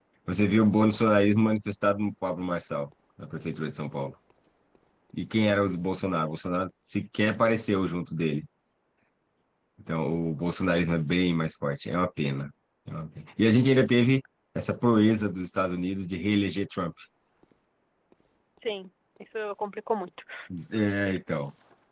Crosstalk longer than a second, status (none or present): none